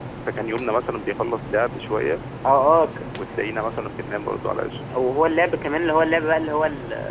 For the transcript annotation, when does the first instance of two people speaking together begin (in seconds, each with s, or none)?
none